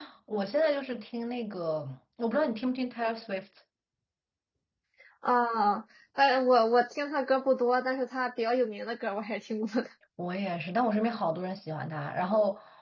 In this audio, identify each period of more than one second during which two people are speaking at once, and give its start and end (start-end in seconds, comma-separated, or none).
none